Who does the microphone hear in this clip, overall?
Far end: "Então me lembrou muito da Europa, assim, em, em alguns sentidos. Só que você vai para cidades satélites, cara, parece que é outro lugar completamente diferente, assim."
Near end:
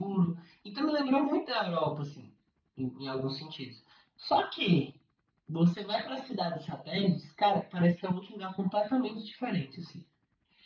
echo only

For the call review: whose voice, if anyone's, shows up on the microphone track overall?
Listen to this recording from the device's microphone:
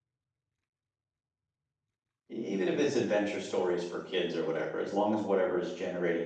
user only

